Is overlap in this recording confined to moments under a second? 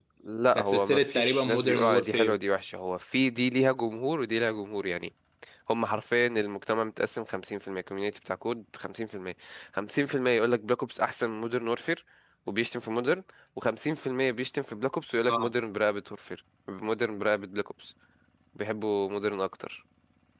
No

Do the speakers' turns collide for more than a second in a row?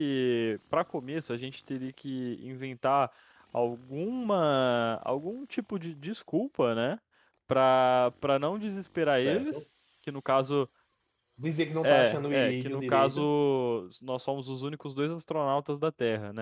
Yes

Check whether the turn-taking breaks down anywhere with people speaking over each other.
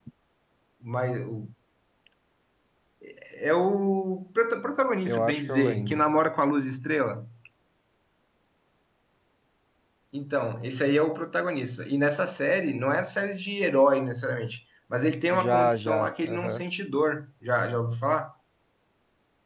Yes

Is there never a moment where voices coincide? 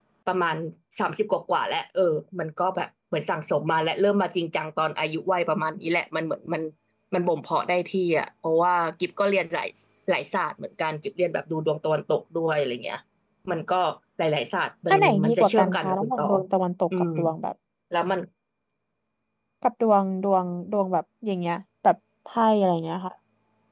No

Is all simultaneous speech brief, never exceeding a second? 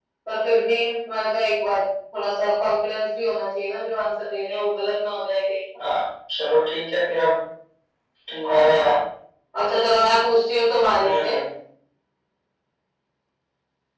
Yes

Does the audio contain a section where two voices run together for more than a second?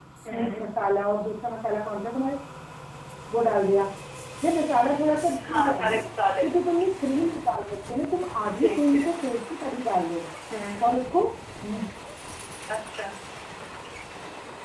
No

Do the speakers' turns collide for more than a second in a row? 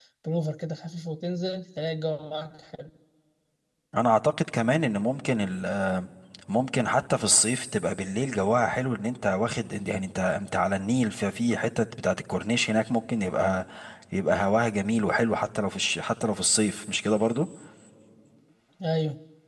No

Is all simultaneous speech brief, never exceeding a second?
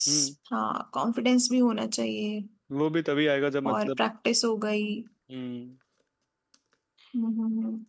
Yes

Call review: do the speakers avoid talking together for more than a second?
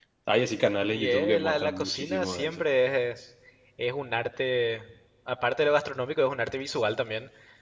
No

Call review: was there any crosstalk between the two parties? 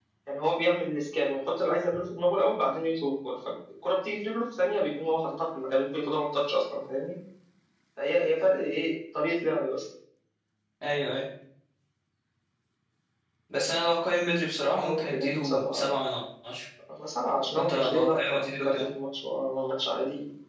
Yes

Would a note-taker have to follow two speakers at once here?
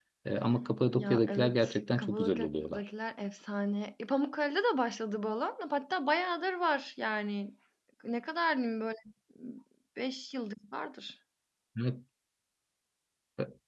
Yes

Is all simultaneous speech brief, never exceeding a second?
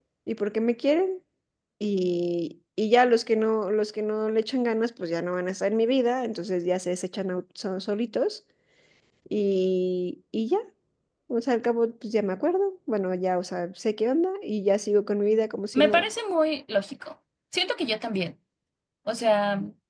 Yes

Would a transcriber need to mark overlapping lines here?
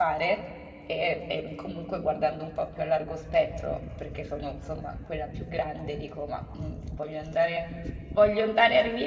No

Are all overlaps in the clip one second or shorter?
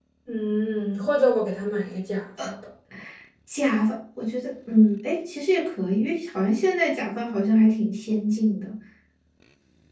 Yes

